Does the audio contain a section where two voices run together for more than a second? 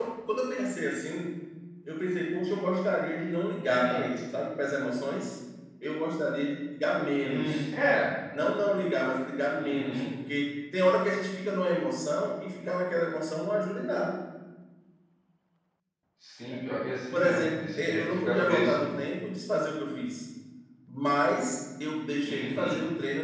Yes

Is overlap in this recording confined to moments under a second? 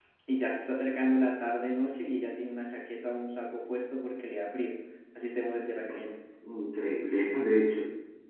Yes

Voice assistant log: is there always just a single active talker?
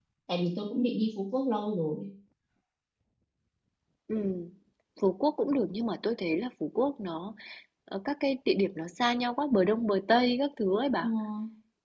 Yes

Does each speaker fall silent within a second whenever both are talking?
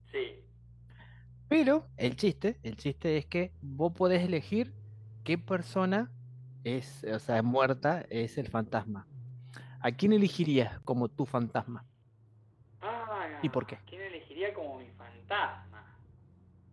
Yes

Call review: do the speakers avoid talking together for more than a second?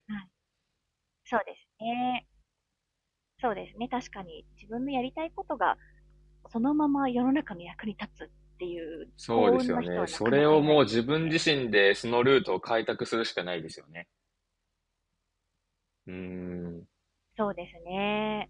No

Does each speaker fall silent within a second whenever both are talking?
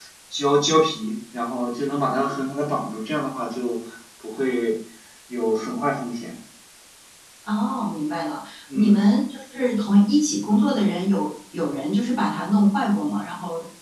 Yes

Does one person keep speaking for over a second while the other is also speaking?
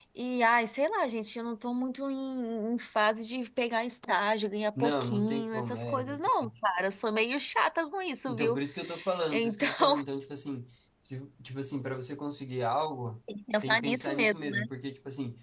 Yes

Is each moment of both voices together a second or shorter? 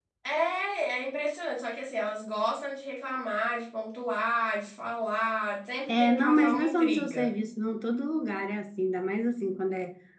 No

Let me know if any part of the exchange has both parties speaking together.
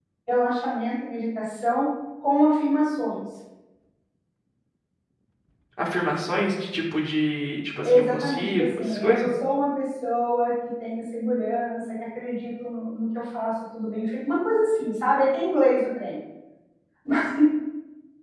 Yes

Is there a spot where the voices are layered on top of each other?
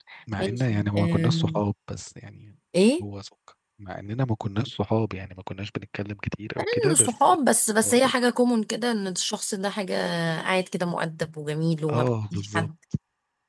Yes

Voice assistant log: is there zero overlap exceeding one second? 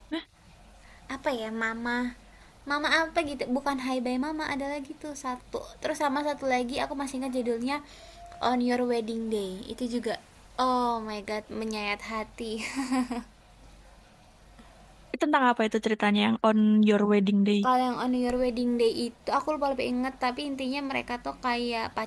Yes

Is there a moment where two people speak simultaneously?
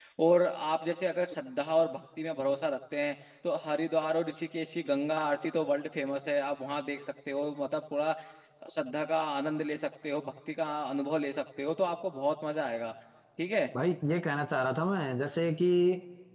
No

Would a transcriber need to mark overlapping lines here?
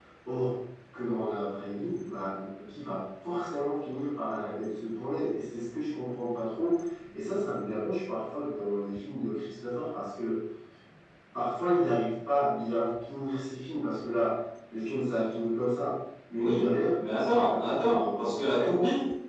Yes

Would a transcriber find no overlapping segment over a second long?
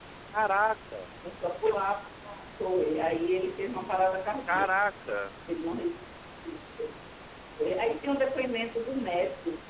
Yes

